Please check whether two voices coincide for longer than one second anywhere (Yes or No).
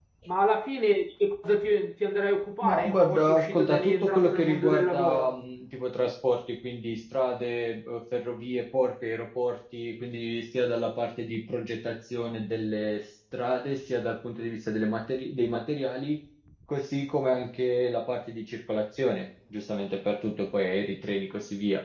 Yes